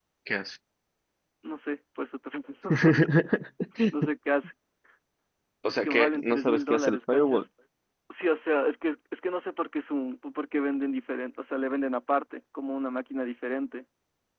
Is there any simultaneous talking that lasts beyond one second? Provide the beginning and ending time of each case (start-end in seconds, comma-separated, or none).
5.7-7.4